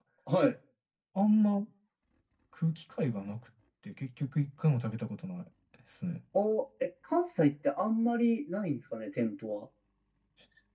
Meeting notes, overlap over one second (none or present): none